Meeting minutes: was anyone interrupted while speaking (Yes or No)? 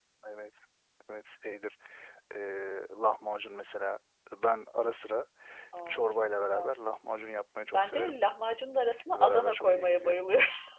Yes